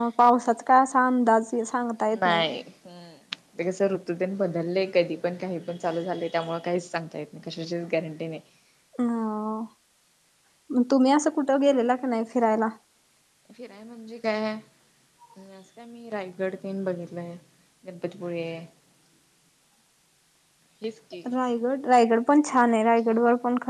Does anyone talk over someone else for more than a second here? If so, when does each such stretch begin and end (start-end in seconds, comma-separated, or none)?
none